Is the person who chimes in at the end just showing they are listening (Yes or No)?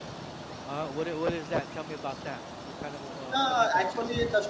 No